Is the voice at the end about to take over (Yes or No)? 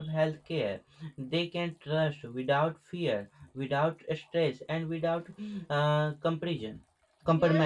Yes